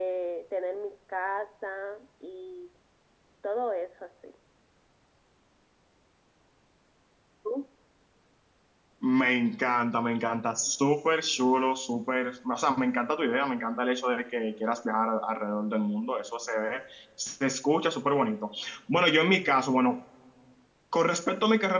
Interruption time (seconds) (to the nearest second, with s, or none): none